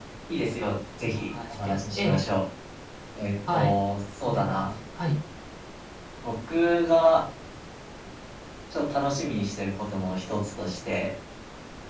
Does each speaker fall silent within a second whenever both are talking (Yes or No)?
No